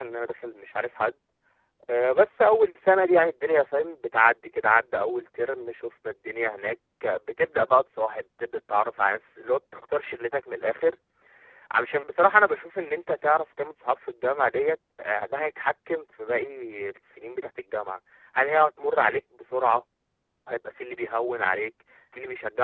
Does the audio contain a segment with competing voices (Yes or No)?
No